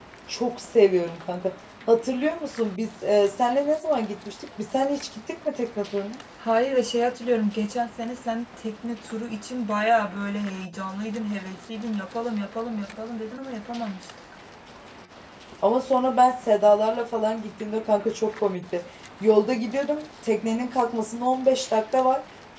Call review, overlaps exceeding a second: none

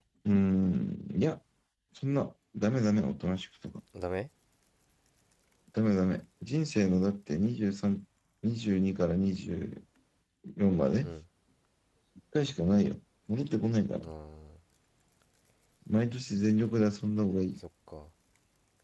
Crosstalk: none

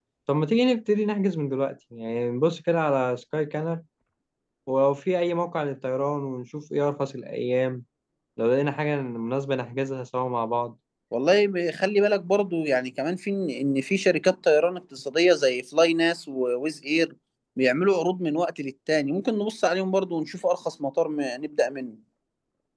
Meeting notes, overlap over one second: none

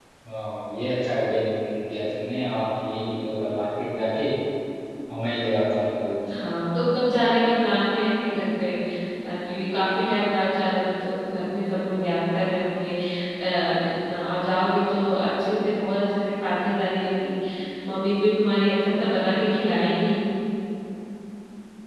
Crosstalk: none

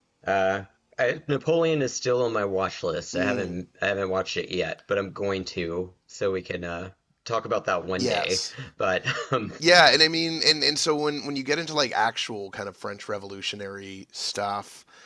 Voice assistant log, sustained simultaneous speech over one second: none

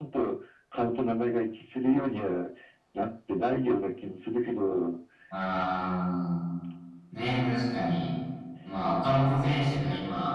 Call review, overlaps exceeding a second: none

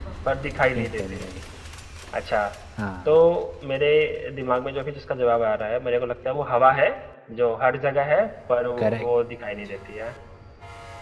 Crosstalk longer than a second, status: none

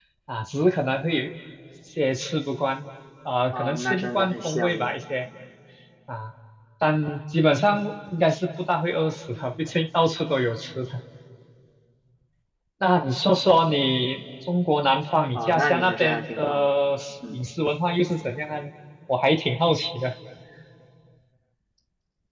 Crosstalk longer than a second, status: present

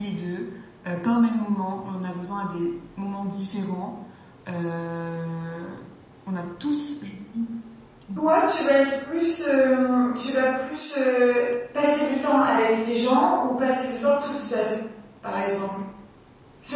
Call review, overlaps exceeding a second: none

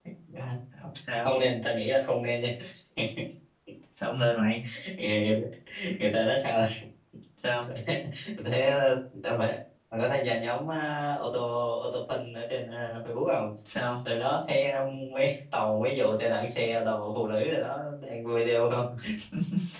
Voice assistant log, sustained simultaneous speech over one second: none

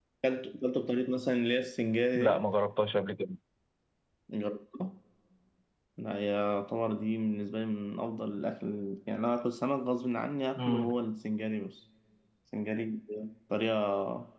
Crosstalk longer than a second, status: none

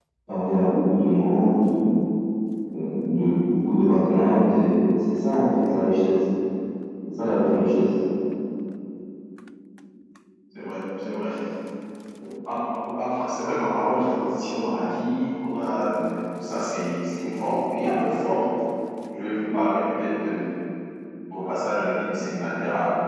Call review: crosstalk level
none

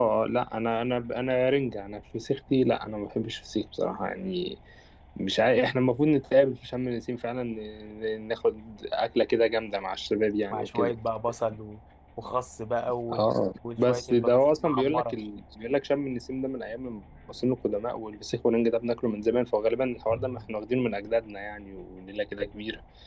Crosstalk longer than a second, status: present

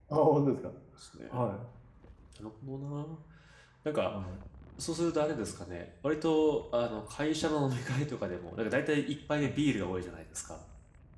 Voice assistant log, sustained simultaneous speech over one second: none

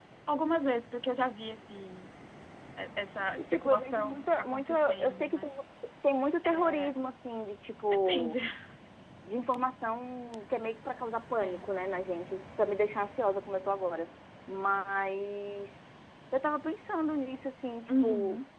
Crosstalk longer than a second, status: present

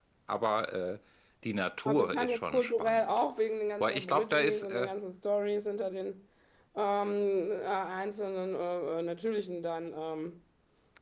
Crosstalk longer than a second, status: present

